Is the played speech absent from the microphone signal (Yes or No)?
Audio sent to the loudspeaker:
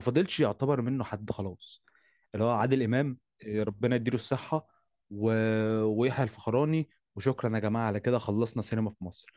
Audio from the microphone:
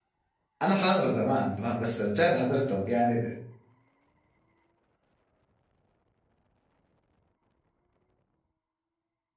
Yes